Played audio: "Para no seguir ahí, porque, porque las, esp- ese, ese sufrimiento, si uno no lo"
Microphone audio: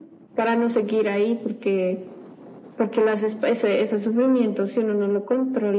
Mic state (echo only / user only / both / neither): echo only